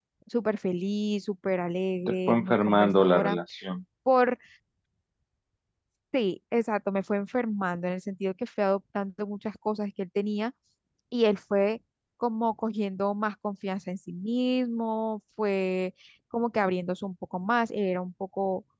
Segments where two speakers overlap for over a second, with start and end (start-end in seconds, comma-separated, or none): 2.1-3.4